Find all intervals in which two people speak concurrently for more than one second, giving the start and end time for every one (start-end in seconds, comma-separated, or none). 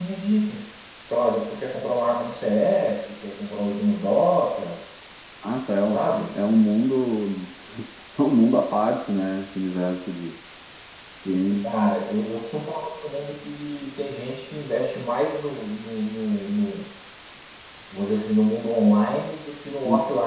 none